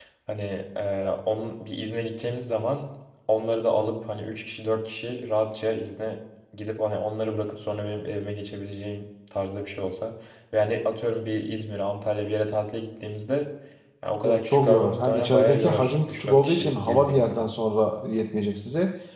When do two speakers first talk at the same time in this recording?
14.2 s

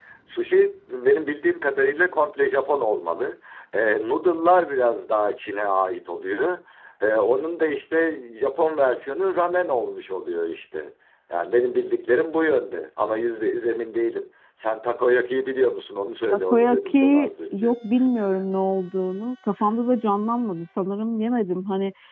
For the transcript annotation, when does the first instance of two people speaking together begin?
16.3 s

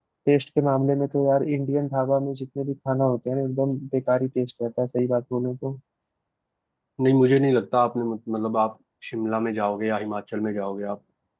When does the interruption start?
none

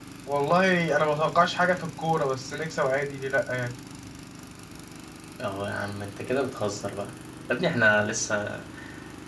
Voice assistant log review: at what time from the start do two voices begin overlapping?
none

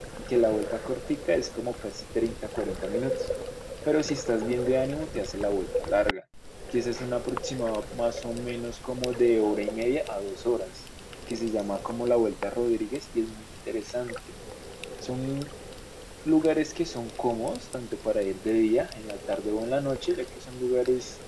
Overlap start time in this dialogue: none

